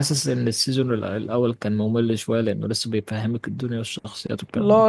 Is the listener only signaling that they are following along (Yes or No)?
No